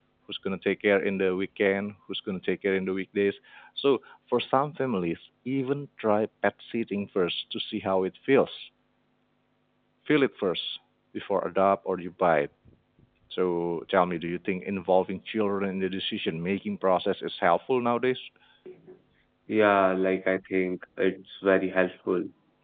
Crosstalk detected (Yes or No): No